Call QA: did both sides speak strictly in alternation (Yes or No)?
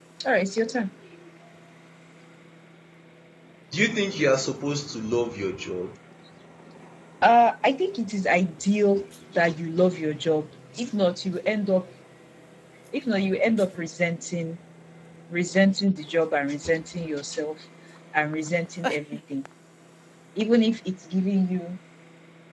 Yes